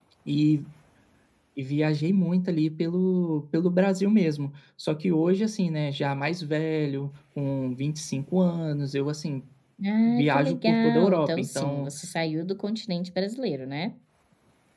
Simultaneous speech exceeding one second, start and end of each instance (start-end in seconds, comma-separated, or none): 10.1-11.9